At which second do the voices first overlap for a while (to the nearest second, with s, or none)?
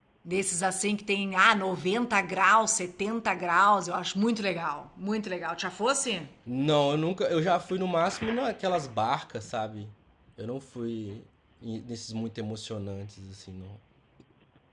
none